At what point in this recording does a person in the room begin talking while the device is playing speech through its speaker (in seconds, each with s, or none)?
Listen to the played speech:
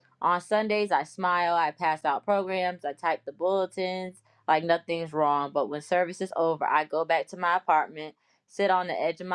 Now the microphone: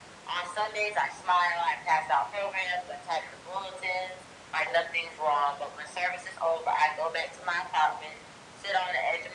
none